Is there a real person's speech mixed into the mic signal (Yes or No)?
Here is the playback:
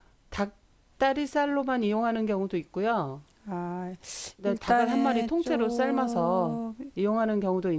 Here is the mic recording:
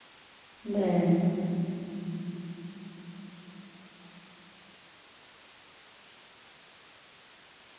Yes